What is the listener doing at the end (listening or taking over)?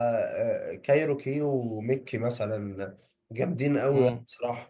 taking over